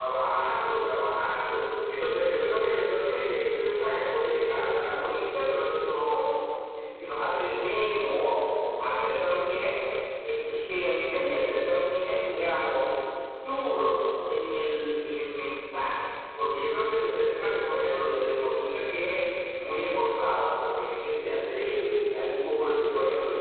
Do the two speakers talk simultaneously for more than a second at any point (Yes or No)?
No